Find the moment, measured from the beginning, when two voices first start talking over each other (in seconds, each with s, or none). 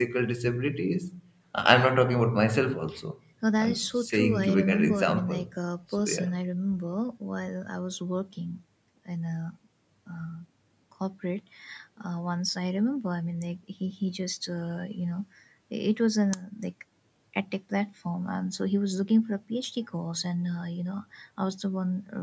3.6 s